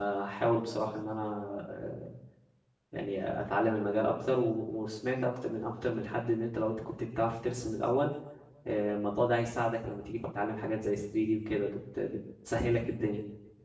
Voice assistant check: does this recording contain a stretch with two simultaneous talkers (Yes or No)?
No